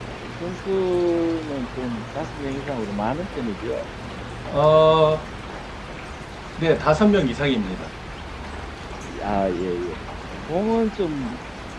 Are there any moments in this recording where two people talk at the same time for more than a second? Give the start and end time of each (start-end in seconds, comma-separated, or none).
none